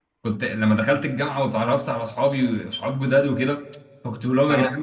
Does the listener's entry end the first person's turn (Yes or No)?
No